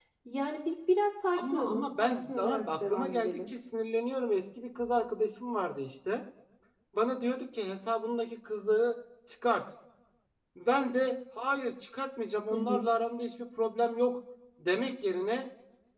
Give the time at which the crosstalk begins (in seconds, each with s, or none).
1.4 s